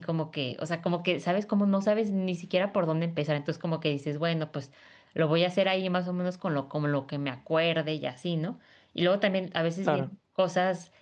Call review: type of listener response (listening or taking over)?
listening